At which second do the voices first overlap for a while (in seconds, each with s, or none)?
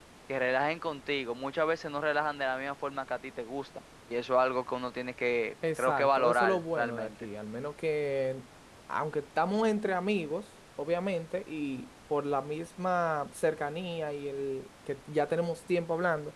5.6 s